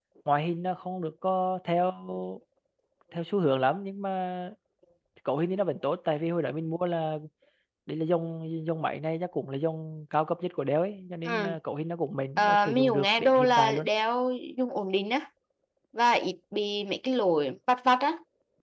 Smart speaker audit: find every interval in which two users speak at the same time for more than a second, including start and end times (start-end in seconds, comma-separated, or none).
12.4-13.8